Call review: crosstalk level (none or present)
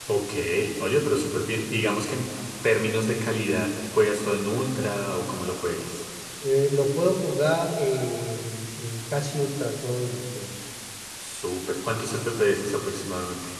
none